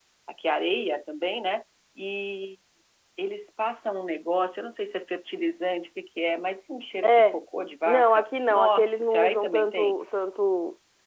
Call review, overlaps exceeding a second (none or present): present